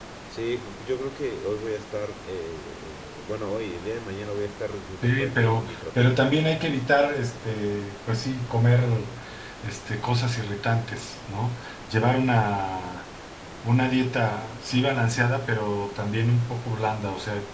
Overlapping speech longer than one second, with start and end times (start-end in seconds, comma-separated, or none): 5.0-6.2